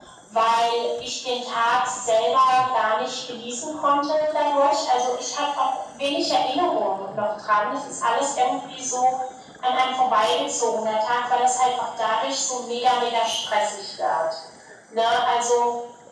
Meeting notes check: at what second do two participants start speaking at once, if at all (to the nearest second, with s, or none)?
none